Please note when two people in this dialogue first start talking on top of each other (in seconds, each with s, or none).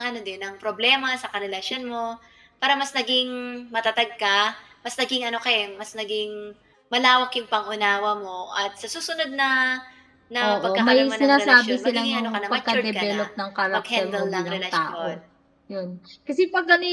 10.4 s